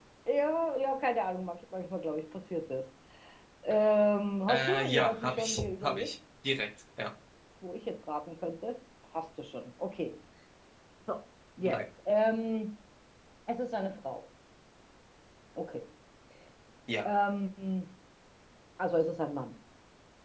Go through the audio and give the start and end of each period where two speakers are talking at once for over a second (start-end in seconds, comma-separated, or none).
4.5-6.1